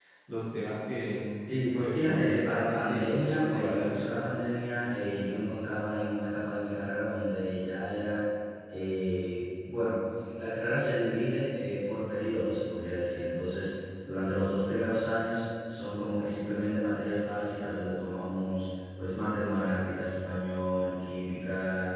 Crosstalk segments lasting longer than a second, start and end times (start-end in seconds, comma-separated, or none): 1.4-4.2